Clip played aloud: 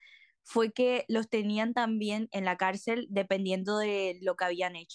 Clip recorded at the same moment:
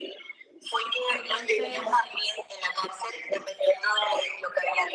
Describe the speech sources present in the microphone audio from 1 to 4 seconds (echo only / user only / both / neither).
both